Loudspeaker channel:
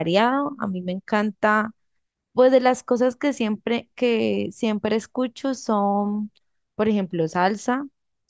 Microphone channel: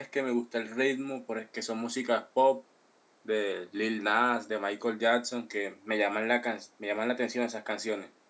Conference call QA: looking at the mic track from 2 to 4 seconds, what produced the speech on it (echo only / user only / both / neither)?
user only